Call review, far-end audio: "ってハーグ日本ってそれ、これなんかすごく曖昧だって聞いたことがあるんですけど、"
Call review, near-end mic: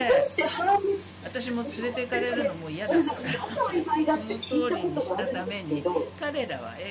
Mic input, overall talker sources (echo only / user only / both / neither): both